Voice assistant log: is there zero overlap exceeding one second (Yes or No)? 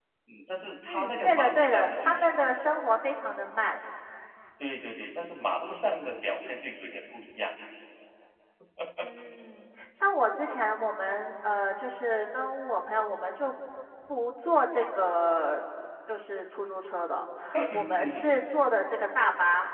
No